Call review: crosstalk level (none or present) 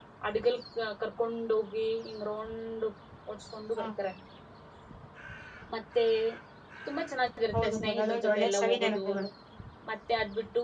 present